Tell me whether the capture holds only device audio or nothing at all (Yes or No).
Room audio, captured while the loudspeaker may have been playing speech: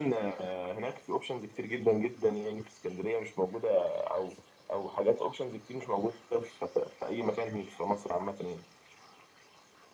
Yes